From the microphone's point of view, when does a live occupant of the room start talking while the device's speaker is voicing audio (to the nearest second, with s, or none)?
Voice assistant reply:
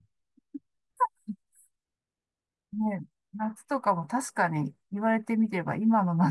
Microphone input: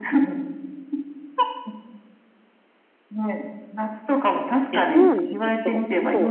5 s